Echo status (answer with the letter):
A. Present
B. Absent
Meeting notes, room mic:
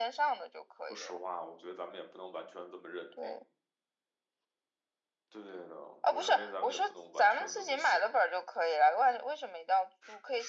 A